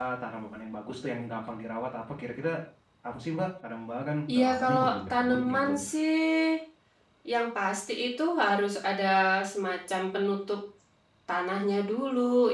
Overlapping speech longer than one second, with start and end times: 4.3-5.7

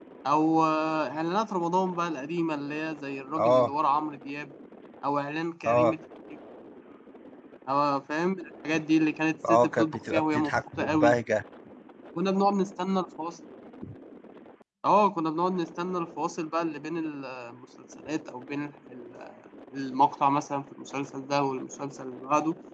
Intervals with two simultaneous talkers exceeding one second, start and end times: 9.5-11.1

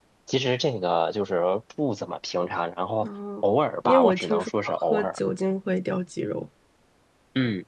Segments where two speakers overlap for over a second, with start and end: 3.9-5.2

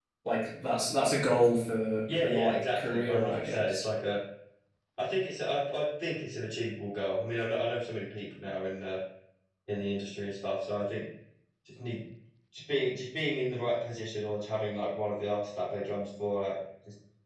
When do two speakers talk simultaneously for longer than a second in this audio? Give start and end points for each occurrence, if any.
2.2-3.8

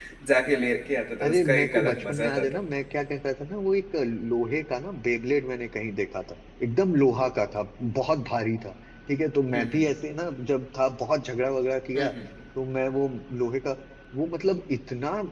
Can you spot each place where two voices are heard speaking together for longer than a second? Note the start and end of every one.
1.2-2.6

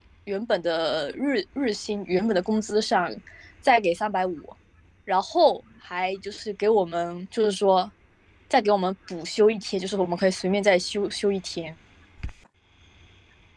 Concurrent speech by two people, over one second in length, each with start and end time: none

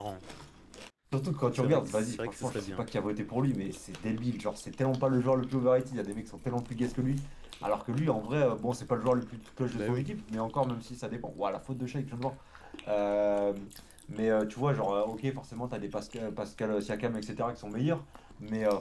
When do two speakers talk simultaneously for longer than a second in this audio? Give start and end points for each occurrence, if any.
1.5-2.9

